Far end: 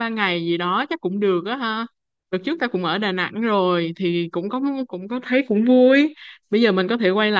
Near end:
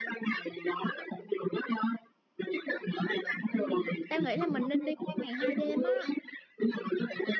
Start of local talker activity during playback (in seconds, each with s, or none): 3.5 s